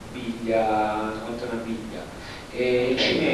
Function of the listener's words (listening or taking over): listening